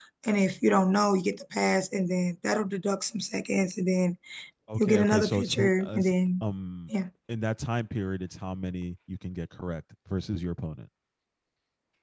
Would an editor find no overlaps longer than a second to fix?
No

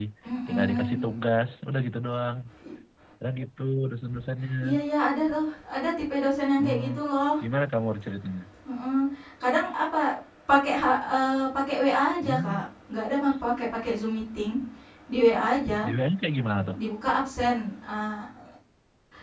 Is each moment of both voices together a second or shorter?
Yes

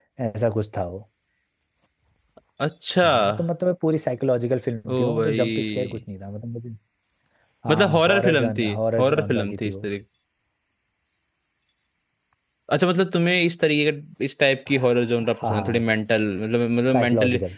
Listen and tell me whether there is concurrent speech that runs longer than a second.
Yes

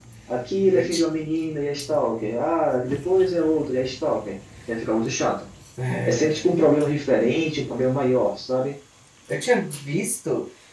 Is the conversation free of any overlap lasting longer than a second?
Yes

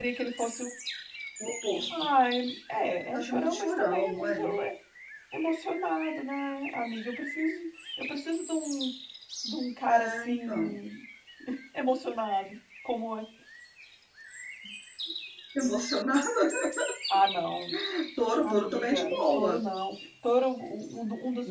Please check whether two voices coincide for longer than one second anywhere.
Yes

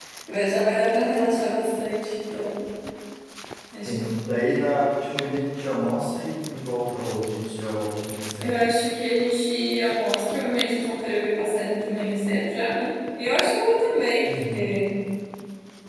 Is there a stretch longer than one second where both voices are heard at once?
No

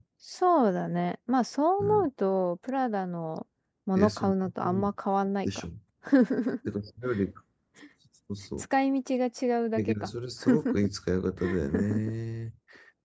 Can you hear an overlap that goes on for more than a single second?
No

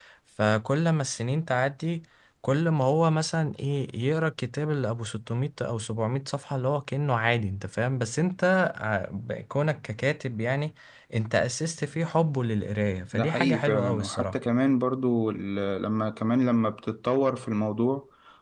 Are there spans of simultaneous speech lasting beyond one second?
Yes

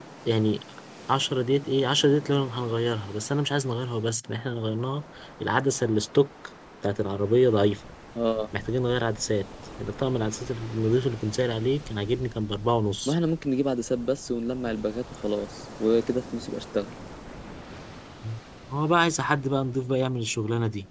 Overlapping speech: No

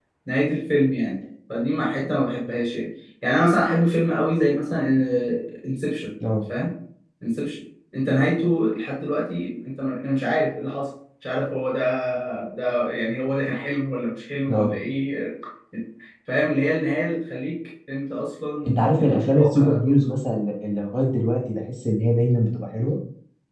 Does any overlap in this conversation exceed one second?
Yes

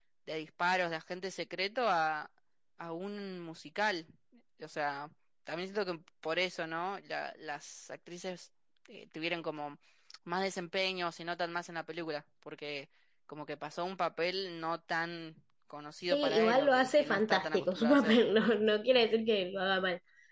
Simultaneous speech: Yes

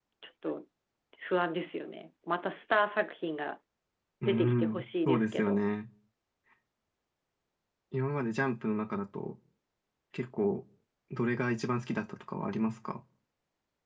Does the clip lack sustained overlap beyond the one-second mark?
No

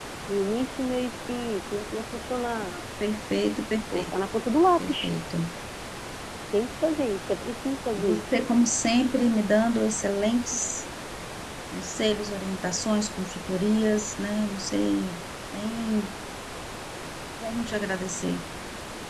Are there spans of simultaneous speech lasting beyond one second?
No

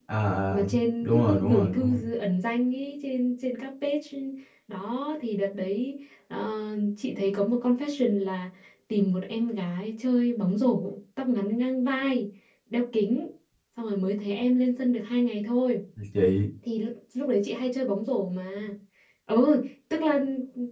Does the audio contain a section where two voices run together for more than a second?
Yes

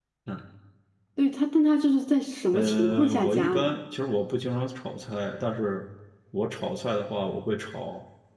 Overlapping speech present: Yes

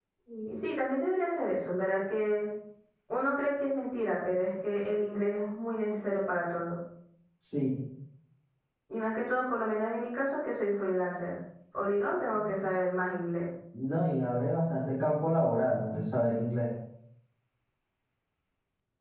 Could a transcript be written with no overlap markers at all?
Yes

